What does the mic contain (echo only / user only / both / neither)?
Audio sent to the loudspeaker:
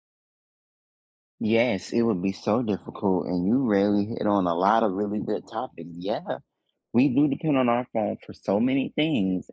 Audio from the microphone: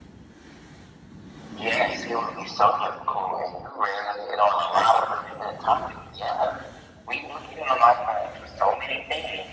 echo only